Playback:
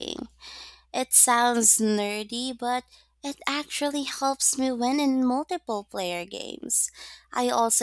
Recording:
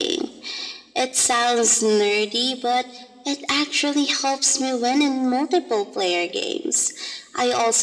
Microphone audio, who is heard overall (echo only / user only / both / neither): echo only